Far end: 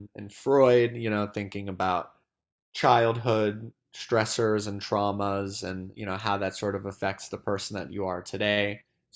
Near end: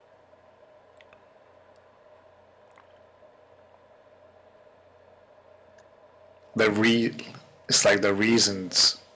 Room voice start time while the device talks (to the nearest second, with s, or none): 7 s